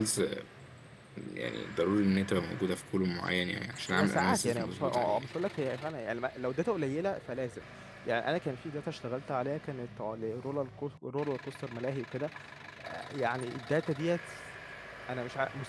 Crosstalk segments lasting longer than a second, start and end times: 3.9-5.2

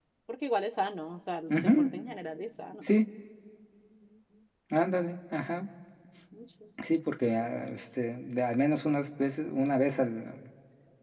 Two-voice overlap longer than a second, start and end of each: none

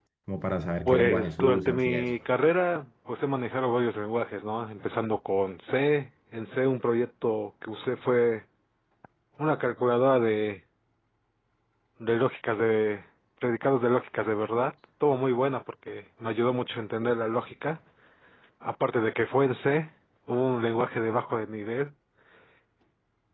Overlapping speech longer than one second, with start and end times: 0.9-2.1

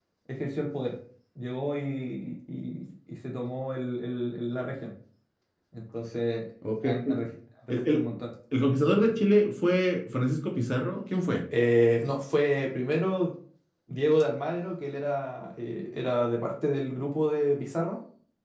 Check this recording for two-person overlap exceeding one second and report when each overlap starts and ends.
none

